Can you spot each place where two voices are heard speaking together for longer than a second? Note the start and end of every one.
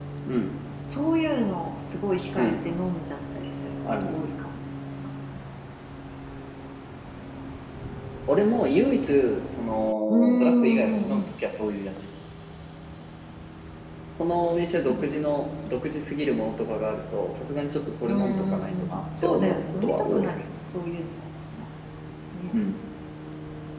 10.1-11.3, 18.0-20.3

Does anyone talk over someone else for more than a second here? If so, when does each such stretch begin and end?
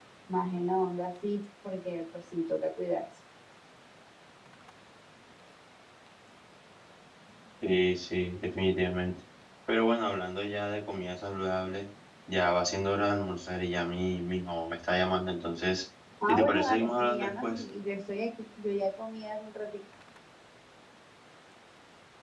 16.3-17.6

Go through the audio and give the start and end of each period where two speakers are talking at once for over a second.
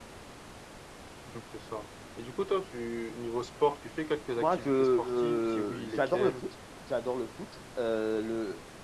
4.4-6.4

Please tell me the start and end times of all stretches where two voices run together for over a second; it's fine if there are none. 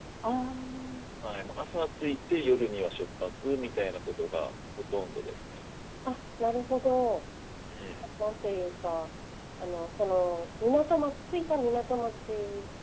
none

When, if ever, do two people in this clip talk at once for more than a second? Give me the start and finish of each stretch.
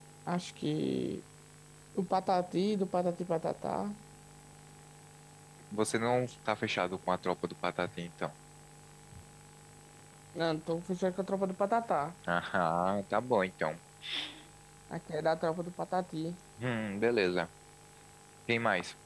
none

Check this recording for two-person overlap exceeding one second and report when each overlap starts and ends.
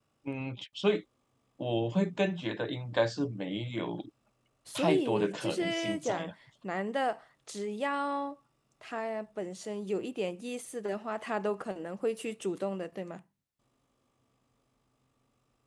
4.8-6.3

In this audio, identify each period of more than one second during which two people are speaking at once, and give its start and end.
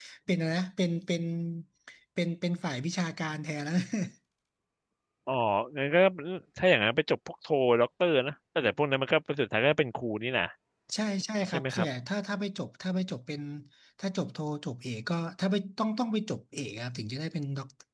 none

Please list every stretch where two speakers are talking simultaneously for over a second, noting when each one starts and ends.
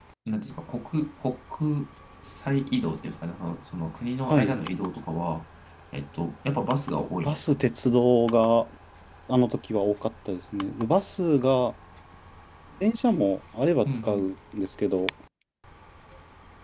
none

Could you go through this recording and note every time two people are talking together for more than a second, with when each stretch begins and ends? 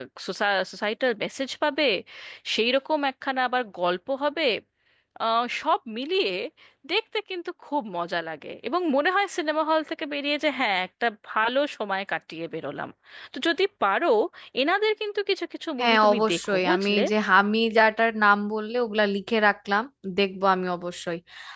15.8-17.0

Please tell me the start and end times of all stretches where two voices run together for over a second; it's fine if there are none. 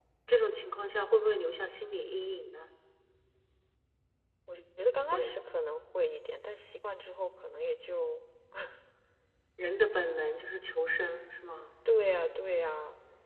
none

